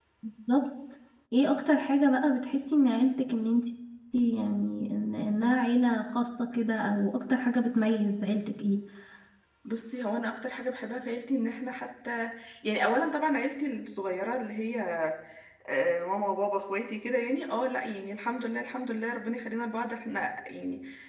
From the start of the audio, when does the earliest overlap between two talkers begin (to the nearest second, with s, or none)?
none